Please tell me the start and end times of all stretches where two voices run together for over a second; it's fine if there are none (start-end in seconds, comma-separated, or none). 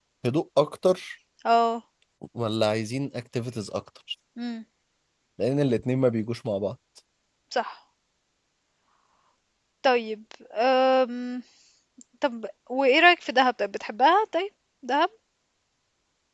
none